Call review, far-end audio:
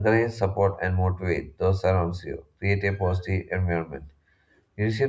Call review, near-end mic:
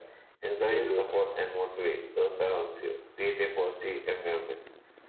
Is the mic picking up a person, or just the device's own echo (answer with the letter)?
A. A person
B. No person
A